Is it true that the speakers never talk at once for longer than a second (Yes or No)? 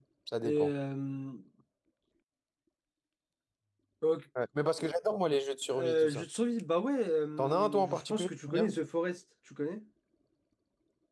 No